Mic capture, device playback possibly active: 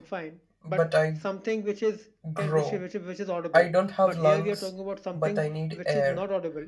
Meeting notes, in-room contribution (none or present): present